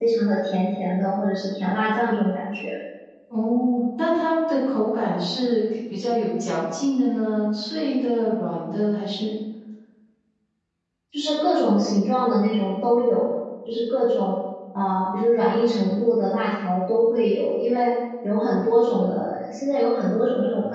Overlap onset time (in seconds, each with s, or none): none